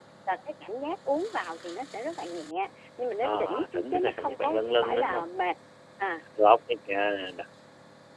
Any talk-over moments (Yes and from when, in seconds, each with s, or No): Yes, from 3.2 s